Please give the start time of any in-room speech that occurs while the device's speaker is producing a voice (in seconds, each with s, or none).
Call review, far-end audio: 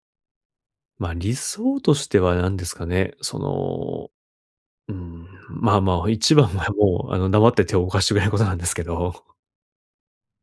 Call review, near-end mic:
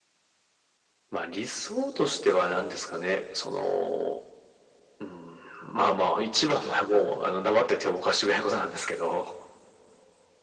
none